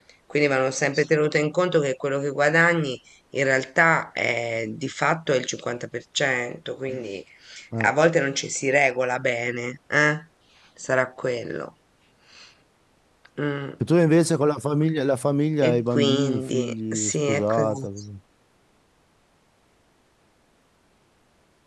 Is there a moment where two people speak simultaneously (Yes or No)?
Yes